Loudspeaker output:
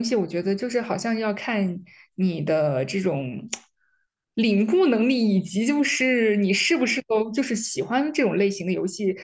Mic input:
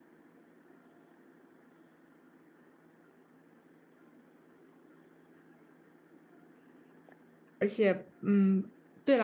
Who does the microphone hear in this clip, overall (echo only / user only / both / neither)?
user only